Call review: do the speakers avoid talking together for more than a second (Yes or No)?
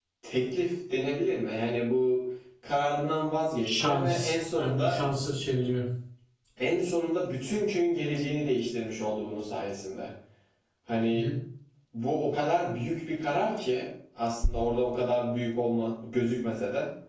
No